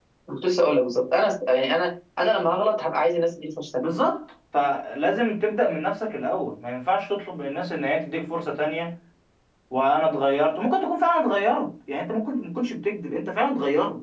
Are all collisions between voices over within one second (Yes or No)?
Yes